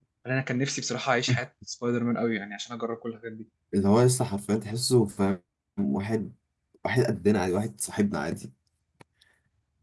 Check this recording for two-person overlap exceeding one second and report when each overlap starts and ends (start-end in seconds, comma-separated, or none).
none